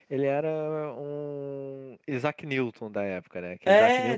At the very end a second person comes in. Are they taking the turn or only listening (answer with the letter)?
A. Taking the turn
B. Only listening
B